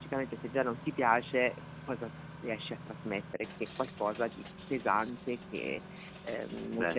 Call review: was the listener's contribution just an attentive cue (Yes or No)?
Yes